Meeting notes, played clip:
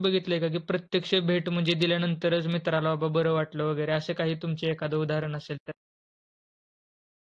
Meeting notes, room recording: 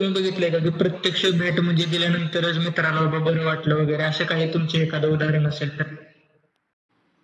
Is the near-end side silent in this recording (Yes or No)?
Yes